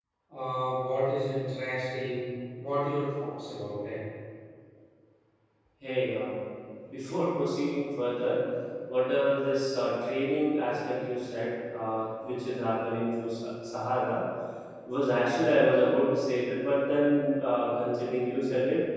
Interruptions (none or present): none